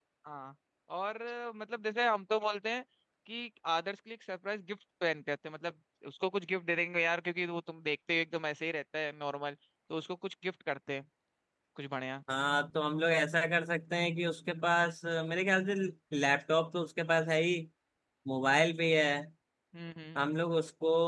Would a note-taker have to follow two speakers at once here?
No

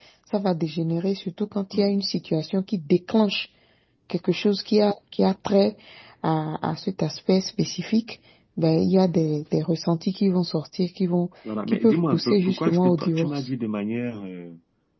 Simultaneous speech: Yes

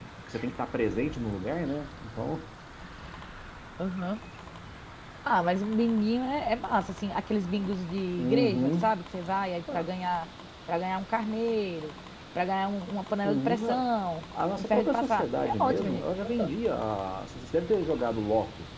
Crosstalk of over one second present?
Yes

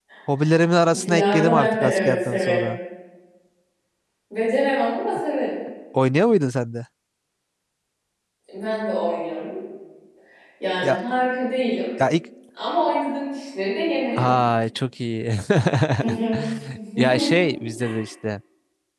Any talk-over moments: Yes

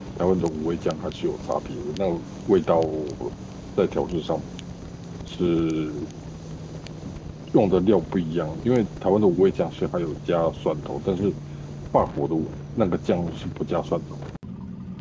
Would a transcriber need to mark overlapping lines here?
No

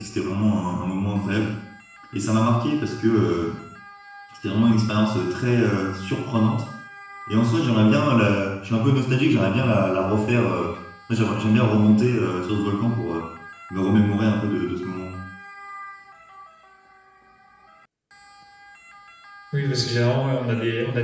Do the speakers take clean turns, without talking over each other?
Yes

